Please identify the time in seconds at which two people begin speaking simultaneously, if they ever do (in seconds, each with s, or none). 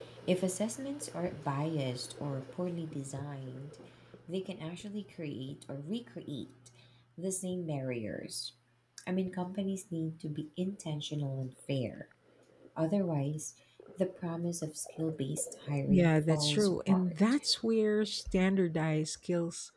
15.9 s